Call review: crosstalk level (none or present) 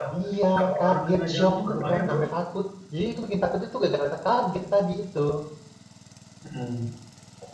present